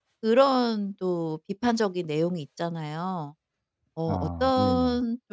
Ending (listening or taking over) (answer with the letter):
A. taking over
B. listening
B